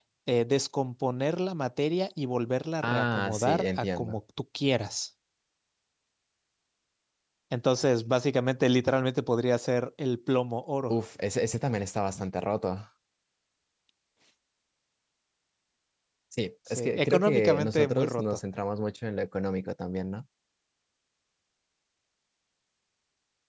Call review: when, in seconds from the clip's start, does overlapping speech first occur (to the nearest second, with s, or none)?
3 s